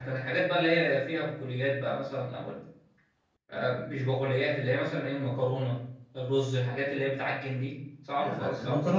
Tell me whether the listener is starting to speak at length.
Yes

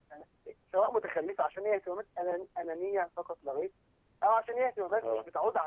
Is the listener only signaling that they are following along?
Yes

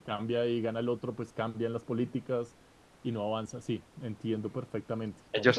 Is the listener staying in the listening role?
No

